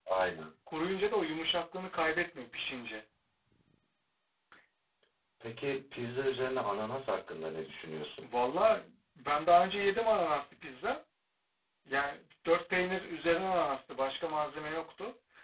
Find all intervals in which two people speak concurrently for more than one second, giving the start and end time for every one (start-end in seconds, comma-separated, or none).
none